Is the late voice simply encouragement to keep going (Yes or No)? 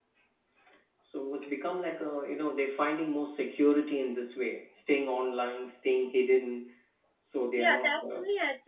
No